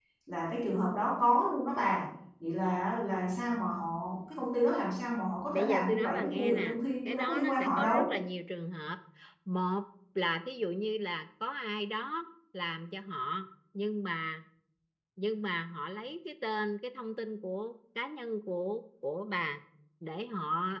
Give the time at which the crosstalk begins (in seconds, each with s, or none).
5.5 s